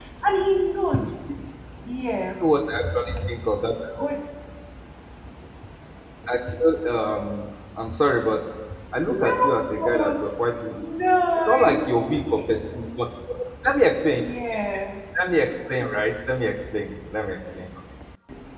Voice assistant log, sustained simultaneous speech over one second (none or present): none